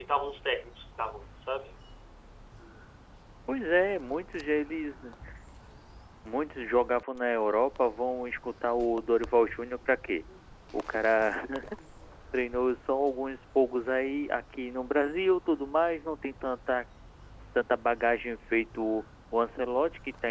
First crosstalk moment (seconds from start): none

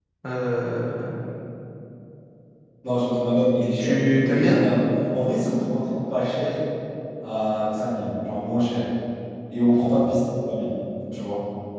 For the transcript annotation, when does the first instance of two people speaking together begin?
3.4 s

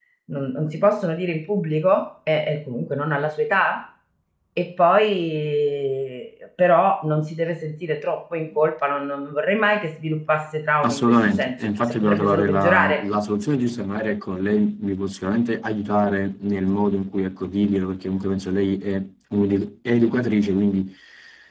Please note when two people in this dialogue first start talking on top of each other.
10.8 s

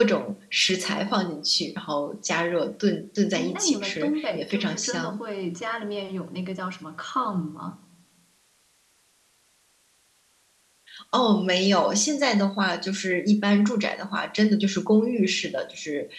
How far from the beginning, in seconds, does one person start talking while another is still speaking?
3.4 s

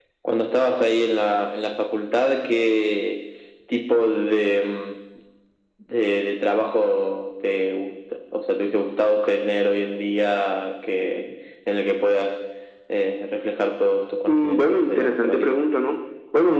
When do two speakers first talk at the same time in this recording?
14.3 s

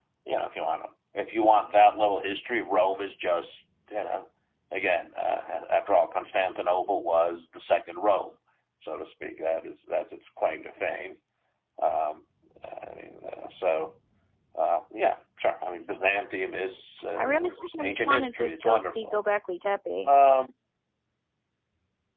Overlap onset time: 17.1 s

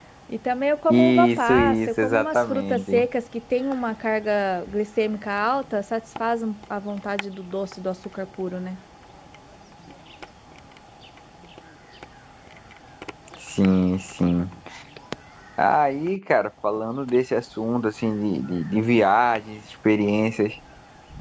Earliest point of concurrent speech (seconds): 0.9 s

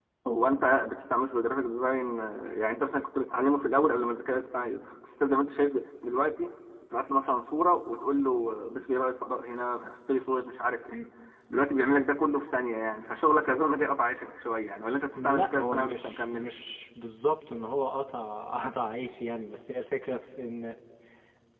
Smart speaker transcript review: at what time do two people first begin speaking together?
15.2 s

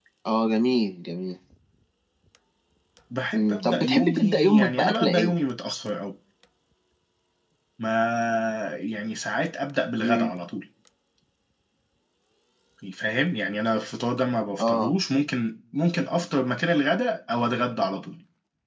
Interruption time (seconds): 3.3 s

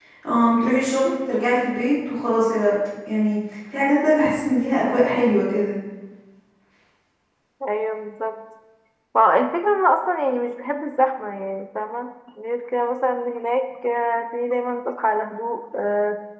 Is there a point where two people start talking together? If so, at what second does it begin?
none

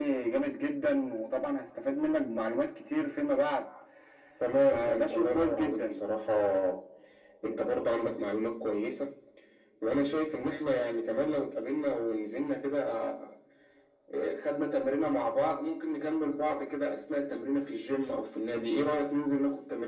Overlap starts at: 4.7 s

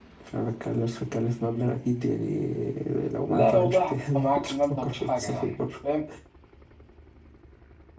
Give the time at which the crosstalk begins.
3.3 s

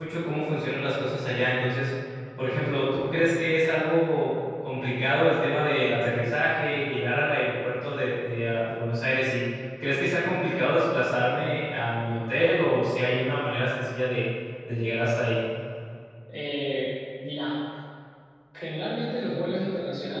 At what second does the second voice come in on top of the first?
none

